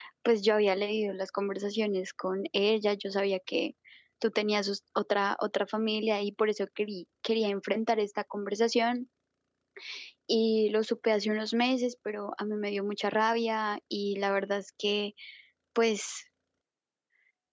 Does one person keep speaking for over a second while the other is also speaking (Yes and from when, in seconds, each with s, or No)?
No